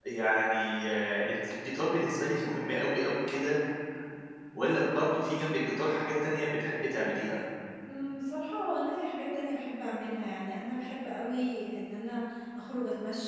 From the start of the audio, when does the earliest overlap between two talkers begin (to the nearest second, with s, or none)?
none